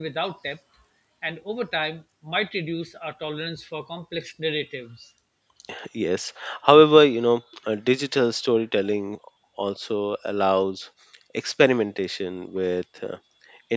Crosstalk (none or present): none